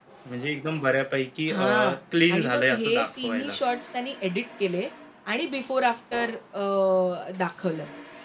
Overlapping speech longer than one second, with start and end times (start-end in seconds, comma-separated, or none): 2.3-3.6